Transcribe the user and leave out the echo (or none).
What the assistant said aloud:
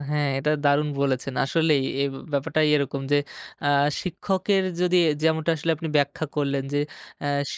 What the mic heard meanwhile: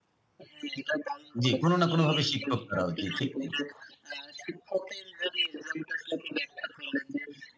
জ্বি, কোন না কোনভাবে শিক্ষক তারাও। জ্বি, ঠিক তাই।